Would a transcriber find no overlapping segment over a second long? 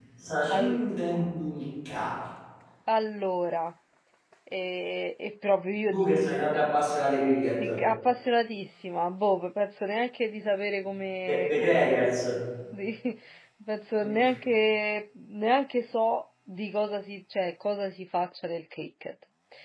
Yes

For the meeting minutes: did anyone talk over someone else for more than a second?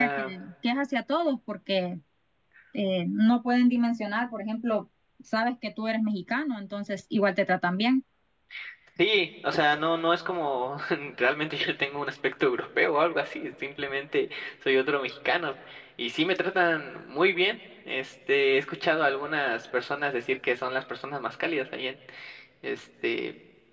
No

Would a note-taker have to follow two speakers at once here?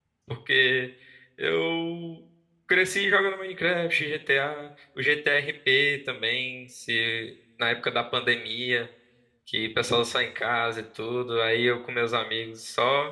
No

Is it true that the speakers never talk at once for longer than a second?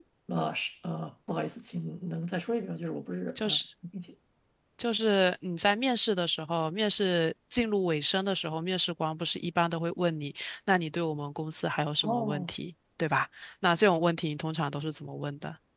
Yes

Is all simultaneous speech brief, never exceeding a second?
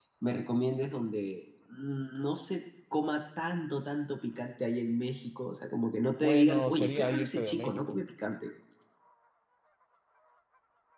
No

